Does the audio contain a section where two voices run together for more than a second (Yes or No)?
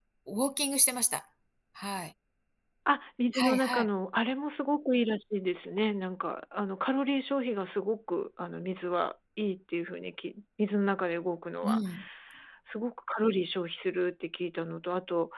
No